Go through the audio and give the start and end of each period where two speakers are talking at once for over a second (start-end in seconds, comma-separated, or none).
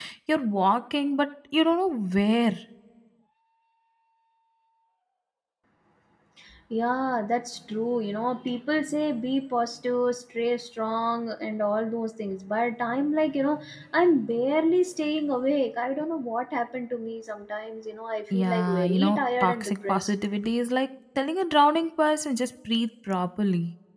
18.3-20.1